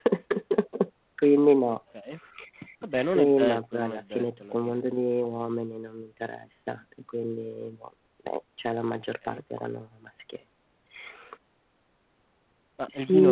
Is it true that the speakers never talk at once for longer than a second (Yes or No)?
No